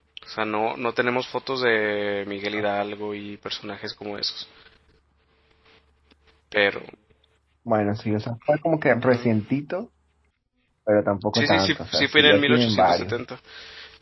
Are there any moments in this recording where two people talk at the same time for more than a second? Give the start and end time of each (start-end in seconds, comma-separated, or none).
11.3-13.2